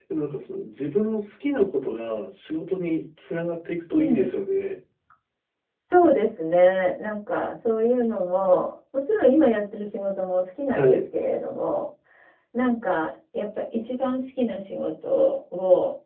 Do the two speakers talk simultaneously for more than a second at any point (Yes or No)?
No